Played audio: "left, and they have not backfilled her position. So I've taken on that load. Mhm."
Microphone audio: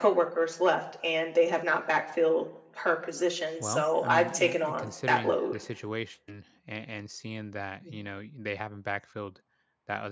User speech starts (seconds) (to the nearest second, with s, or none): 4 s